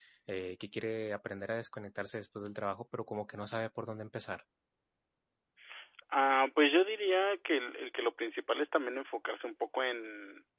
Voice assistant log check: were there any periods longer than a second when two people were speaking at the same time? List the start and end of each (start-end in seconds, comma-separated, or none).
none